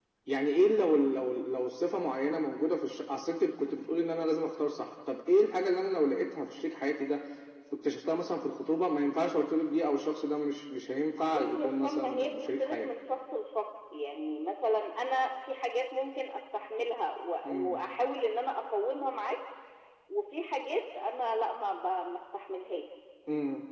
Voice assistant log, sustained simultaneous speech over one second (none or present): present